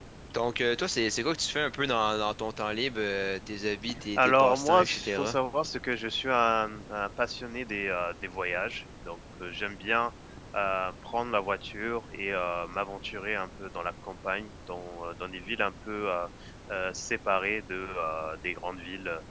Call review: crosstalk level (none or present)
present